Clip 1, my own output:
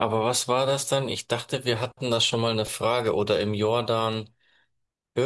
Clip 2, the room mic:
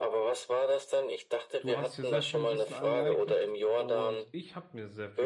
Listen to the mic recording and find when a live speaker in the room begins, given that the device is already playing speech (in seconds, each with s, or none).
1.6 s